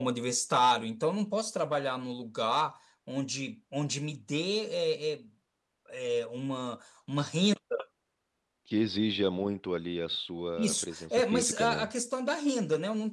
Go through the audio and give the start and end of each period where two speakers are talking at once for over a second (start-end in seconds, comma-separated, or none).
10.6-11.9